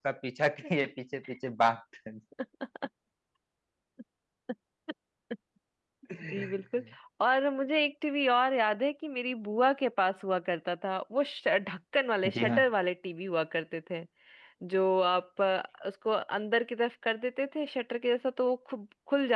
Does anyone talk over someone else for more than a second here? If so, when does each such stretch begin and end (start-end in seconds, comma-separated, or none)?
none